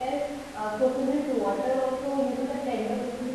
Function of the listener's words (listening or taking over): listening